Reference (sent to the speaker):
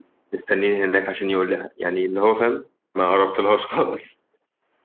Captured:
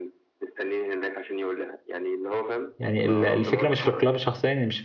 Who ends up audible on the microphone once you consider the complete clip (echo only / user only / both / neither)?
both